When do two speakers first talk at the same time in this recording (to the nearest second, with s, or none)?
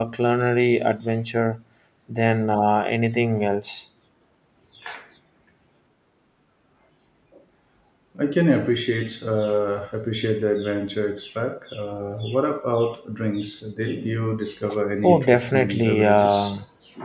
15 s